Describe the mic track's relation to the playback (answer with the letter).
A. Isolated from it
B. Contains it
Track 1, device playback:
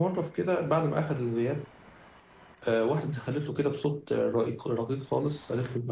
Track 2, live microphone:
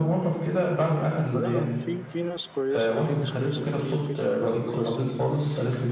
B